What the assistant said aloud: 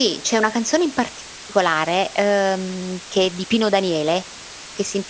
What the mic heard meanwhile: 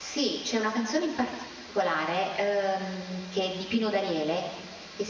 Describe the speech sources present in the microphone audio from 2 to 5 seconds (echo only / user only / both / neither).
echo only